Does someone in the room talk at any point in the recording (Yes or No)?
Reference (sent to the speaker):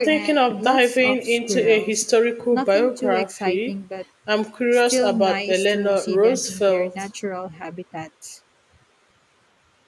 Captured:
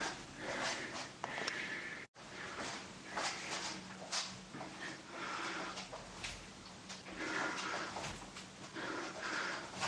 No